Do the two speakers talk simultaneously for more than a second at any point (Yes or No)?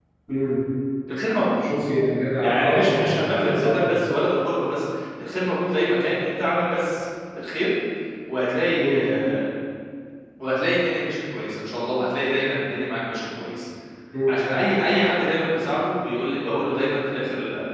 Yes